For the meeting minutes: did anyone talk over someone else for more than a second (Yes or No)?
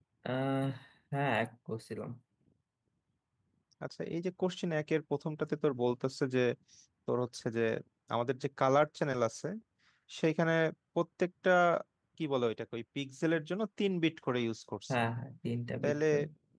No